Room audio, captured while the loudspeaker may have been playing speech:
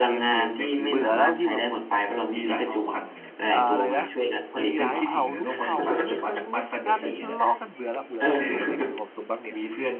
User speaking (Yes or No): Yes